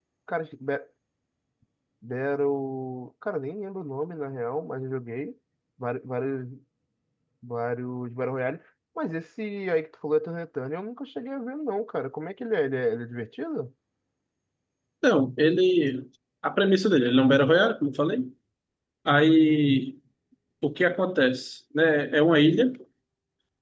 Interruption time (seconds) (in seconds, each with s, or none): none